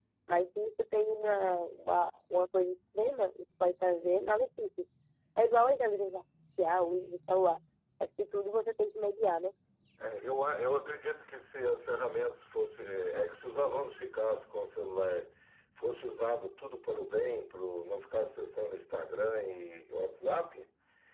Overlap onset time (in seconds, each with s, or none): none